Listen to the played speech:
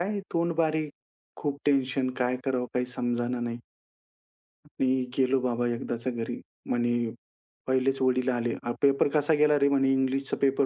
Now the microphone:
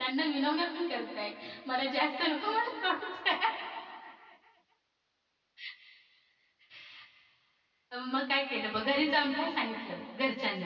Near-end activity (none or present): present